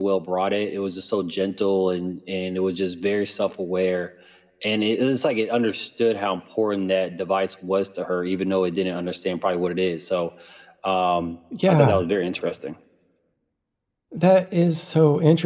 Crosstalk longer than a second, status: none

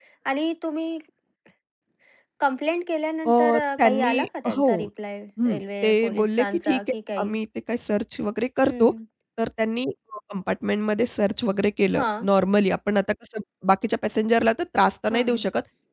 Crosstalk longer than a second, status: present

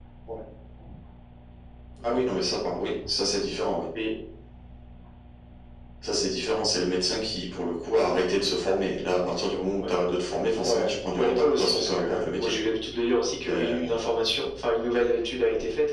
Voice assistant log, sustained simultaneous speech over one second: present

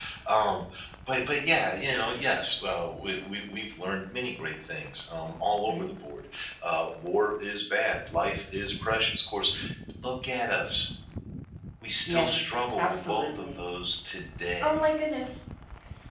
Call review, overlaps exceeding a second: present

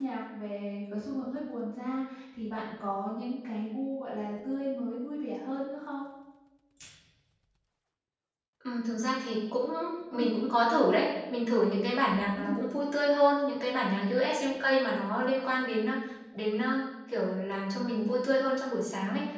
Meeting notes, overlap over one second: none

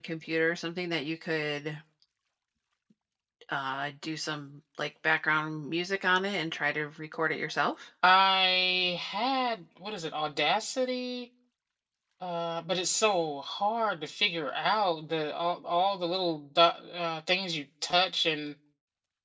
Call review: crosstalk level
none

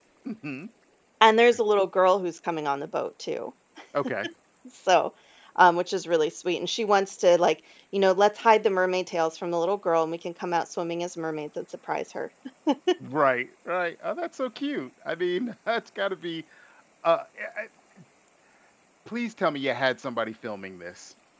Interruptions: none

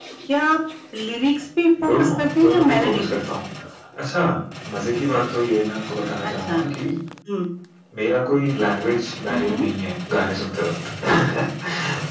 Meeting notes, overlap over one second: present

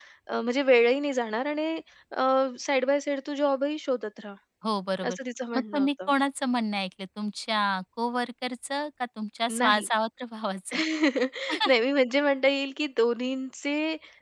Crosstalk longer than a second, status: none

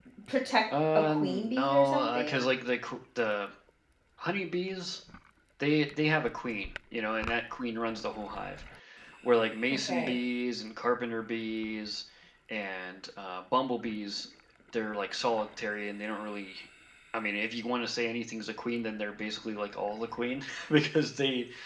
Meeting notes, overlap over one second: present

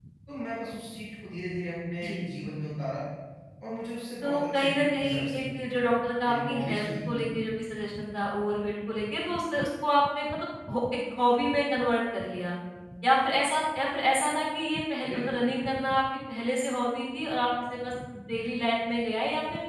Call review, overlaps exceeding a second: present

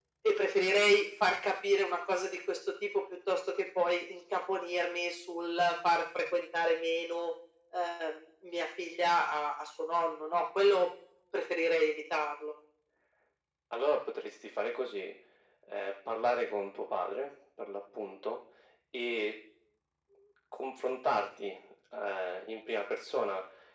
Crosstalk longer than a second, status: none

